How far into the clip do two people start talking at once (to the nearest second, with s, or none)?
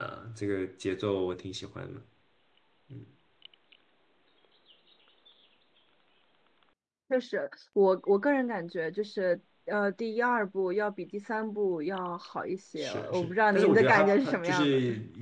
13 s